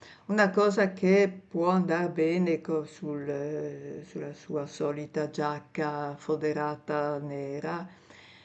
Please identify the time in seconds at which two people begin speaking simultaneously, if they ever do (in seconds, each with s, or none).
none